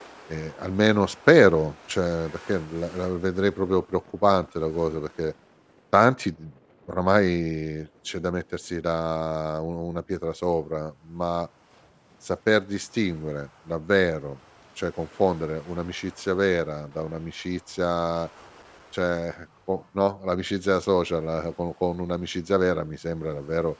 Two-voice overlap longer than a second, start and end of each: none

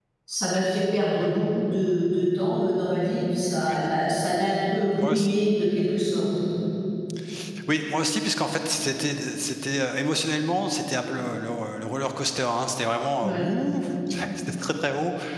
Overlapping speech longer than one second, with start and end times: none

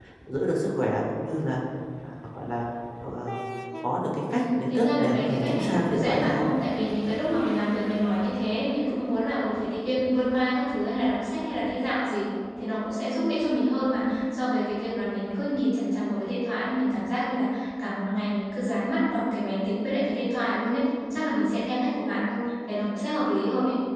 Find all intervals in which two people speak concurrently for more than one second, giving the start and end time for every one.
4.3-6.5

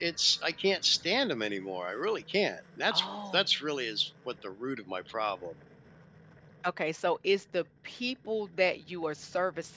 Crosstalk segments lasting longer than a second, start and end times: none

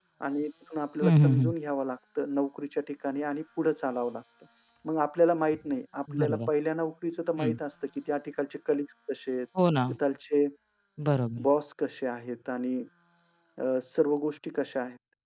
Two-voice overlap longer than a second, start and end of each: none

